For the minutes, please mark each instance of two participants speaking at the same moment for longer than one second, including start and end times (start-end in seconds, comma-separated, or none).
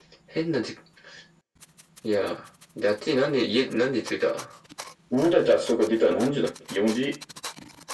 none